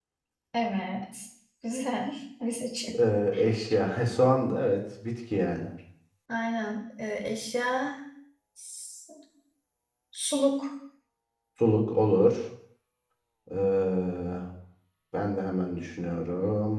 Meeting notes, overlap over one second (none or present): none